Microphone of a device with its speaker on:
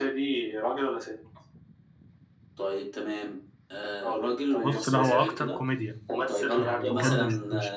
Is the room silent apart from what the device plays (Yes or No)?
No